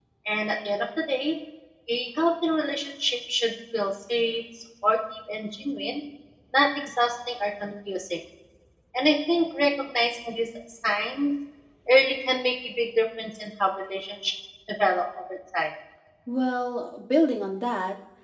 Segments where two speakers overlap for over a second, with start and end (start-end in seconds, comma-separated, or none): none